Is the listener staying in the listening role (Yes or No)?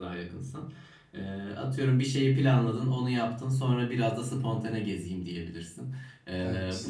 Yes